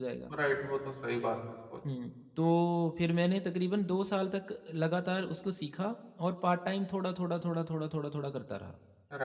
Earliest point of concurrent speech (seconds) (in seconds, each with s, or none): none